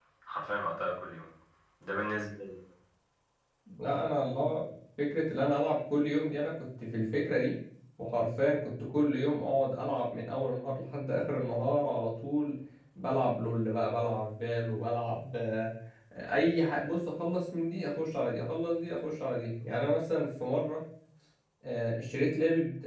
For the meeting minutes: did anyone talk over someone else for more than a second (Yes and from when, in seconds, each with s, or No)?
No